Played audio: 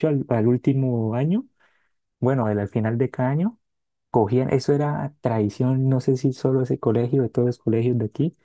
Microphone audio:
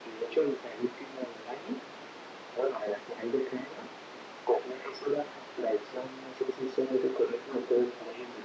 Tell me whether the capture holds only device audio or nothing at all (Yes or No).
Yes